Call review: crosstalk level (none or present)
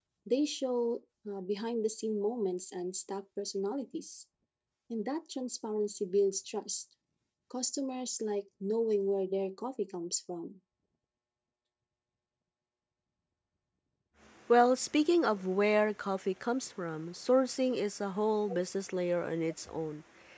none